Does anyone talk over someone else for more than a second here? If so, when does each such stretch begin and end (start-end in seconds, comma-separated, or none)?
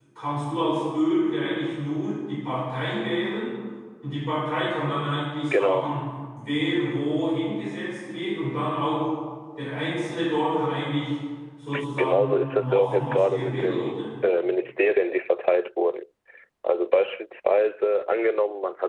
12.0-13.9